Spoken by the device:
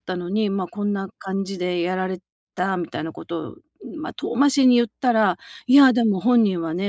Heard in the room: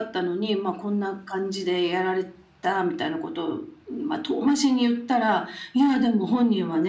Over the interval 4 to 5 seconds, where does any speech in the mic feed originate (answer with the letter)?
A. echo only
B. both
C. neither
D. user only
A